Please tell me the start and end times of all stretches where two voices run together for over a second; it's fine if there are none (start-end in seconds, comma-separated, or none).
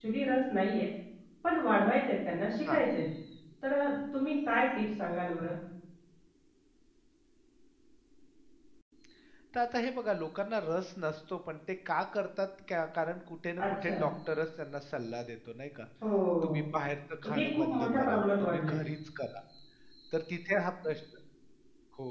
17.3-18.8